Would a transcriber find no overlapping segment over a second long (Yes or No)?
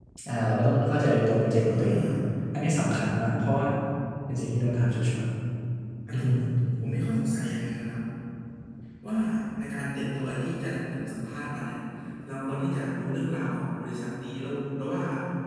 Yes